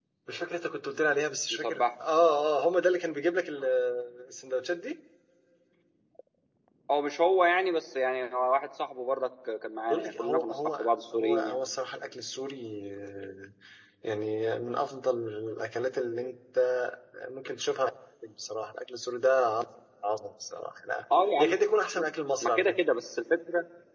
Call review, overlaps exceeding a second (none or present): present